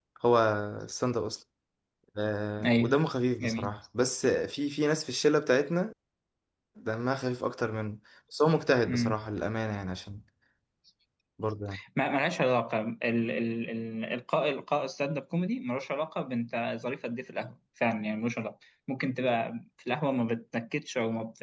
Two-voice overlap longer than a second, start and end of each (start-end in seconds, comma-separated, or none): none